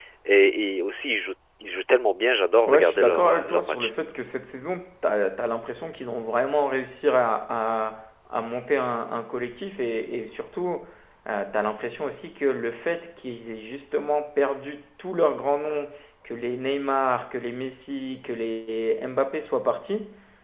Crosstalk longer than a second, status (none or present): present